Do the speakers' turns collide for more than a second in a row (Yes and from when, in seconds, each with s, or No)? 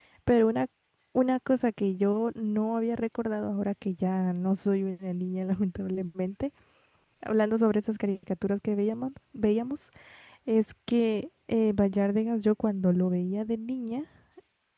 No